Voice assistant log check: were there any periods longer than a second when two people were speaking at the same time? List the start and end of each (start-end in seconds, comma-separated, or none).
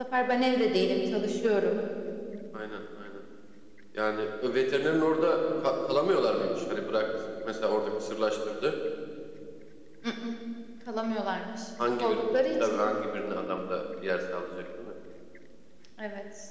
none